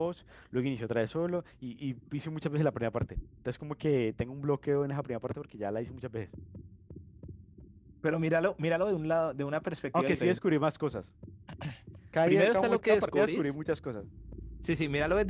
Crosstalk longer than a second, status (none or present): present